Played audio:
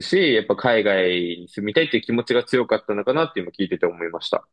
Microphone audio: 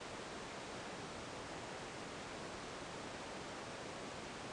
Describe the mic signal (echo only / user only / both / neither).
neither